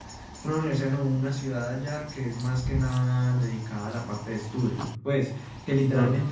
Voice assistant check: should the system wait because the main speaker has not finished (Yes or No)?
Yes